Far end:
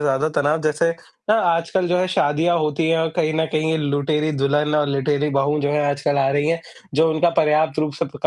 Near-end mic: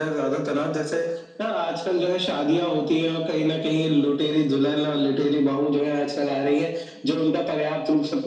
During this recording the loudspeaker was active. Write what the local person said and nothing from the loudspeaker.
none

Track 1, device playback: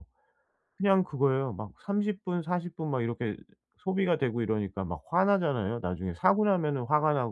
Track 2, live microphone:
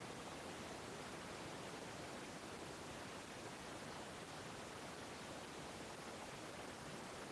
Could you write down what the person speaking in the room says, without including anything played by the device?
none

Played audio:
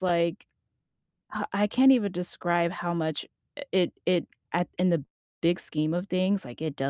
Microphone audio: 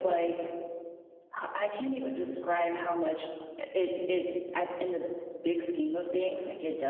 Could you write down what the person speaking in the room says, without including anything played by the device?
none

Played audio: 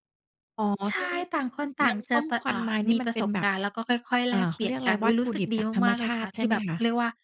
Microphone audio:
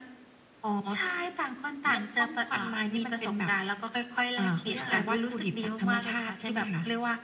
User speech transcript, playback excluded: ค่ะ

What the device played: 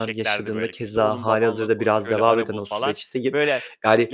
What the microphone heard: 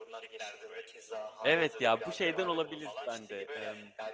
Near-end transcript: Evet ya, bu şeyden olabilir bende, emm,

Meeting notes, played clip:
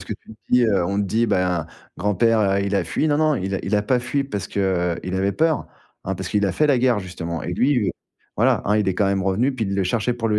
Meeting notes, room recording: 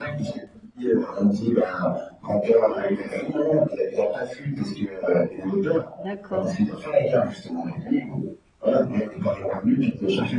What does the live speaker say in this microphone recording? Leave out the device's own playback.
D'accord.

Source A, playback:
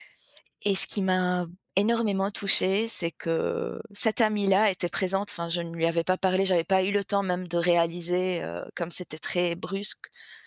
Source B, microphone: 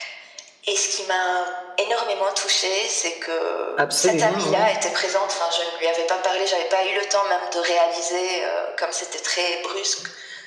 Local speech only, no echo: Absolument, oui.

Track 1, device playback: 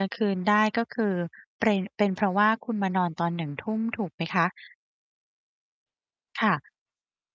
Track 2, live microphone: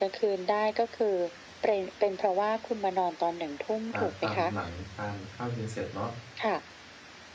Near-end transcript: อ่า ทำหลังทานข้าวเย็นเสร็จเนาะ

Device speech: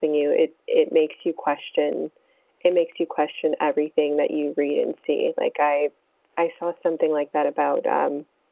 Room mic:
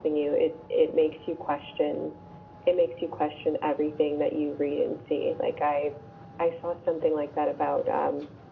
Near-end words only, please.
none

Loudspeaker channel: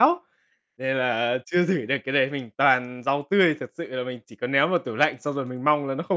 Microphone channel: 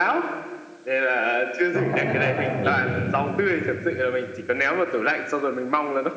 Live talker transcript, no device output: có cách nào đó nghiệm.

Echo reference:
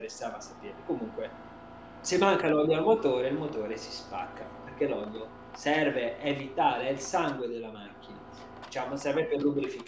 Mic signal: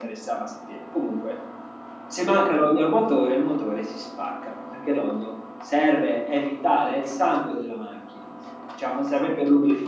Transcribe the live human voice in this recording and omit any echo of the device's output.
none

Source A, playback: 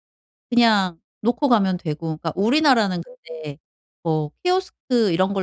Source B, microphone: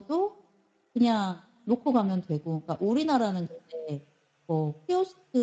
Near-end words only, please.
none

